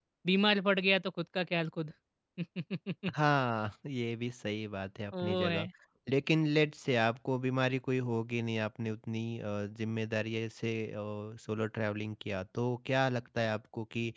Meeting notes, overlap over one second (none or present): none